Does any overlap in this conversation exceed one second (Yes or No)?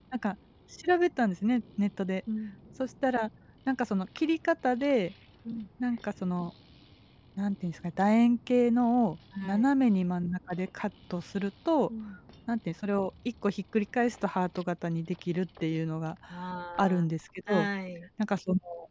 No